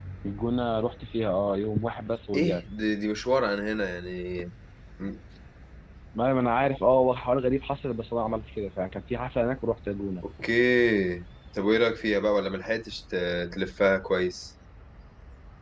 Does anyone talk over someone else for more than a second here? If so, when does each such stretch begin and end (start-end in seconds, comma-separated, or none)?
none